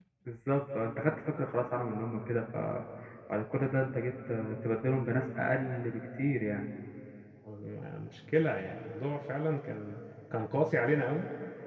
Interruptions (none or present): none